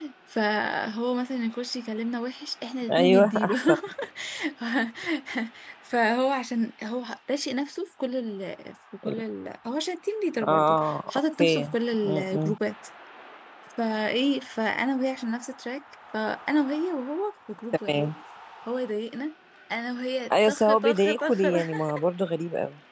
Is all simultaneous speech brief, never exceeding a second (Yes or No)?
No